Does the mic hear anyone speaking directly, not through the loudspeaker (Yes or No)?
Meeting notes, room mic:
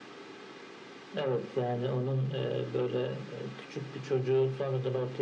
No